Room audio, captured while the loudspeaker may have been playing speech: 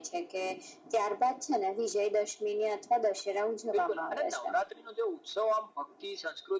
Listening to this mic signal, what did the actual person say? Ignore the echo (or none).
none